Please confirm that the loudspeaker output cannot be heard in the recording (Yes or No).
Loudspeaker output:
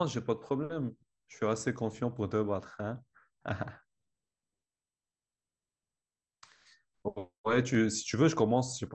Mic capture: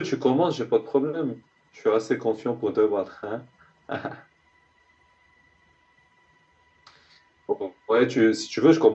No